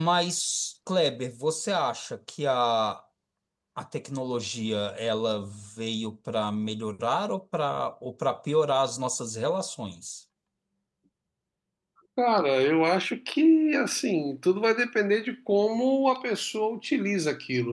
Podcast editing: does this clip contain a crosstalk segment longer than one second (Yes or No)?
No